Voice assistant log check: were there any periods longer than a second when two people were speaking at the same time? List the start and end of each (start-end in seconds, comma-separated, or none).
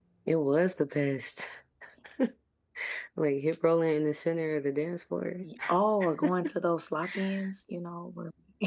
none